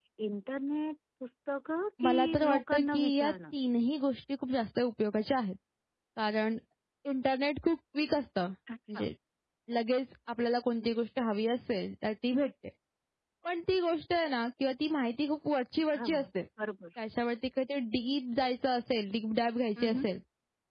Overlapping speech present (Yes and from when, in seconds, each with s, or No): Yes, from 2.0 s